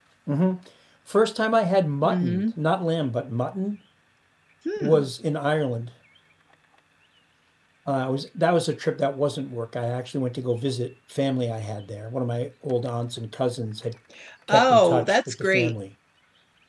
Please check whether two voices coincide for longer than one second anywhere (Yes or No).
Yes